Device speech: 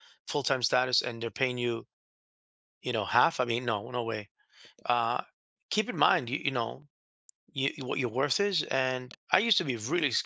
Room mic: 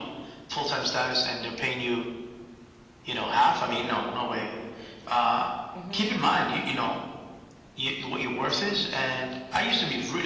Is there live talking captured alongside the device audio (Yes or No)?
Yes